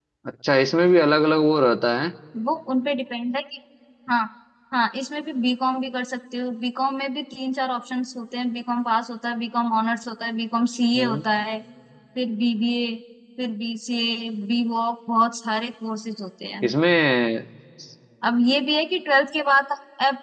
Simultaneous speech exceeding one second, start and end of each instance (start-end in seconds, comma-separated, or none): none